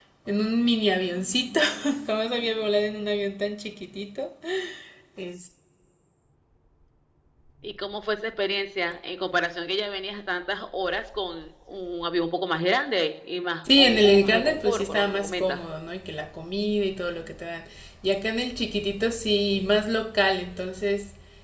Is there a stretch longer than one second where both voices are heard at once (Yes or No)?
Yes